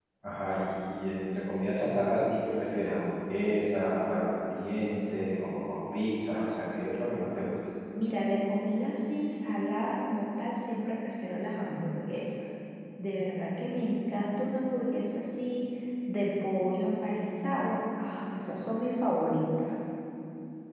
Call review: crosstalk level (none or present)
none